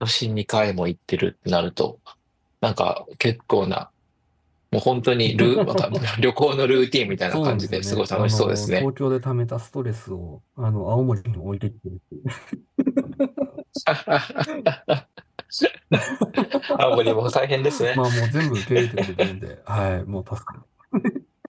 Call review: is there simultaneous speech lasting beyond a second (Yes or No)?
Yes